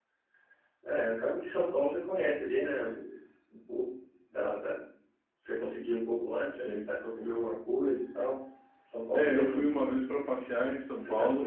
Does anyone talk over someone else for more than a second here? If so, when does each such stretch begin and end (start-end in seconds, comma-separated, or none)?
none